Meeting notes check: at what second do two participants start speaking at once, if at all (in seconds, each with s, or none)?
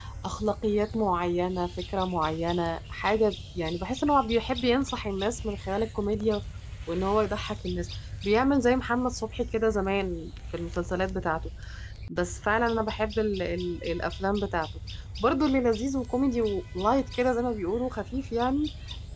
none